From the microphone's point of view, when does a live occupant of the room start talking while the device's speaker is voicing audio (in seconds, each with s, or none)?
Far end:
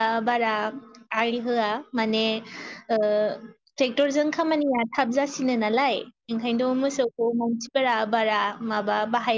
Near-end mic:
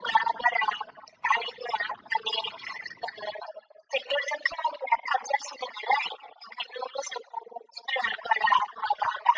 none